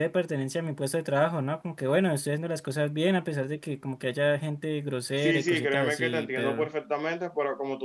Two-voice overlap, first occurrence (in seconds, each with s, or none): 5.2 s